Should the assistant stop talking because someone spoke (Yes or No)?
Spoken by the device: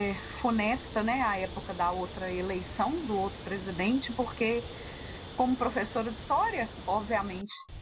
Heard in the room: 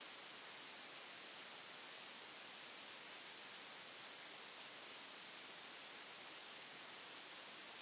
No